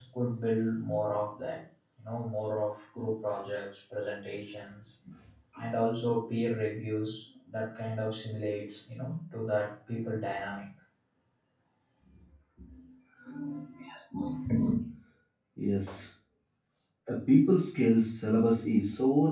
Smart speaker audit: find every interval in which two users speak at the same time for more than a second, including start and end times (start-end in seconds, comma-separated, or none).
none